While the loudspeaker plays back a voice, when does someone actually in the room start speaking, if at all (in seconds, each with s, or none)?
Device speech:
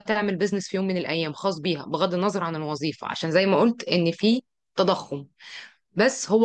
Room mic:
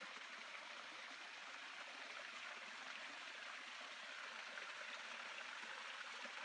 none